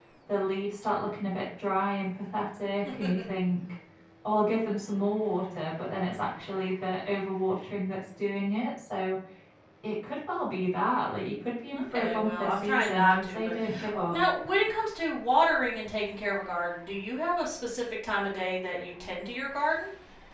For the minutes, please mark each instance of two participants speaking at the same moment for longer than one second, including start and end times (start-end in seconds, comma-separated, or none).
11.8-14.2